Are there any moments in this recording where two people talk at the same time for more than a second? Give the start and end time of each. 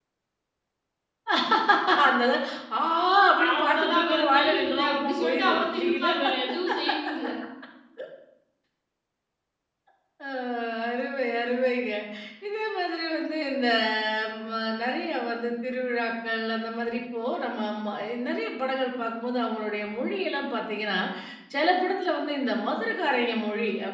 3.5-6.1

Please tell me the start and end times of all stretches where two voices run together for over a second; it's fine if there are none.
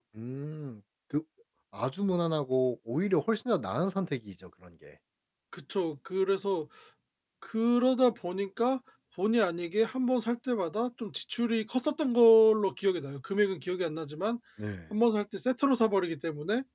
none

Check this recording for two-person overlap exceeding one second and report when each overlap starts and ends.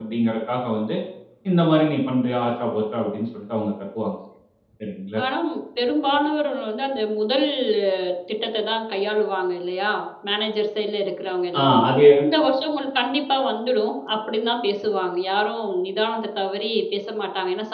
none

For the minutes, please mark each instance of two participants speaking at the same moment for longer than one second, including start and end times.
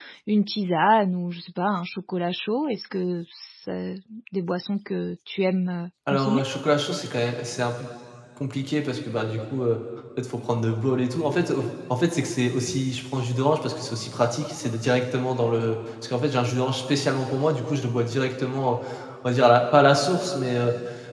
none

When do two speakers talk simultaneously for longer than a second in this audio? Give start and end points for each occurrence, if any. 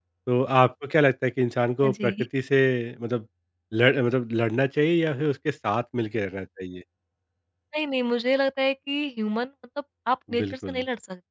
none

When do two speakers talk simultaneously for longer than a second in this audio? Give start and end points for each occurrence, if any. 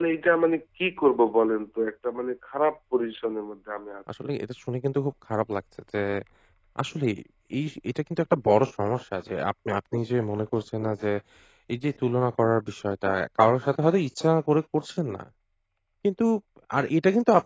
none

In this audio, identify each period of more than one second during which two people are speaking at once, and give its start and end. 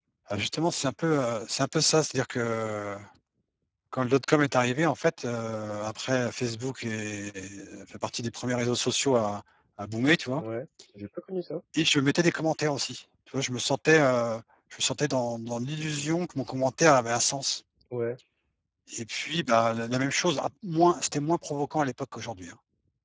none

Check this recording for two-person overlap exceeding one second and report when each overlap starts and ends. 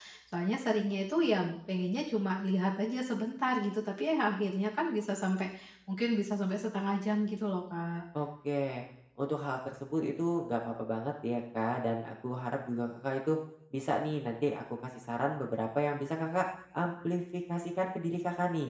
none

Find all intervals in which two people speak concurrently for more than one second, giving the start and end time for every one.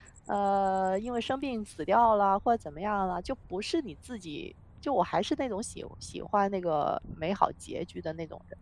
none

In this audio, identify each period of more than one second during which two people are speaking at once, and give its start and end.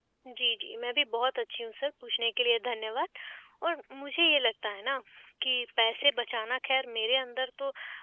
none

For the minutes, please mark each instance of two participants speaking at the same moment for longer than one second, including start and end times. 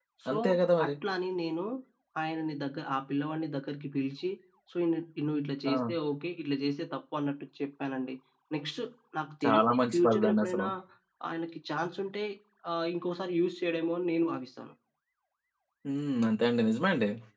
9.4-10.7

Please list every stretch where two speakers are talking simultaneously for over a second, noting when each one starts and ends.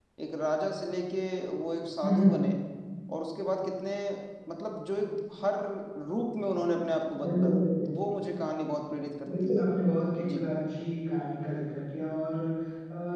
none

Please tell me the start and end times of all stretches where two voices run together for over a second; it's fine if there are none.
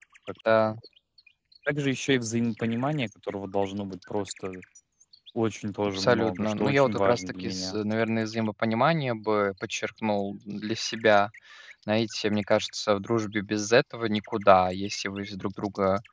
5.9-7.8

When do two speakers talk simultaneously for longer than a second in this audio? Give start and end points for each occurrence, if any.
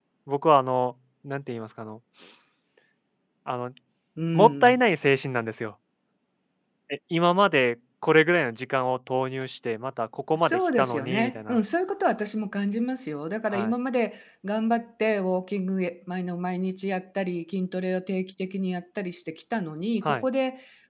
10.3-11.6

